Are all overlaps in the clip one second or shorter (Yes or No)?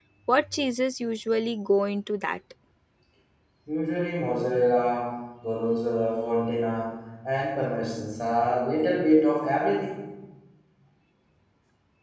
Yes